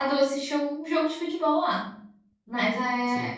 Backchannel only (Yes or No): Yes